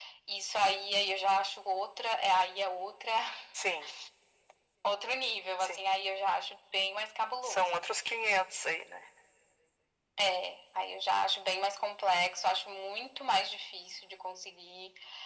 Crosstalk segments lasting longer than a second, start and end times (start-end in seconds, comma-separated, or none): none